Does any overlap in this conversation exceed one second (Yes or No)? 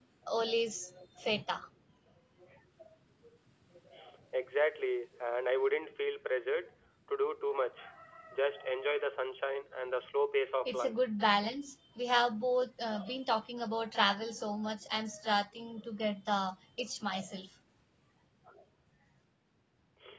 No